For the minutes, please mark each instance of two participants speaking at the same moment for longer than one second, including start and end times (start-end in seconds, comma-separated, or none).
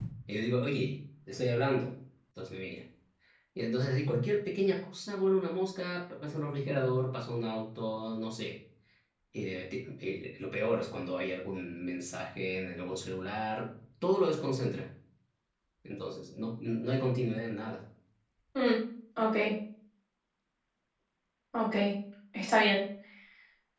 none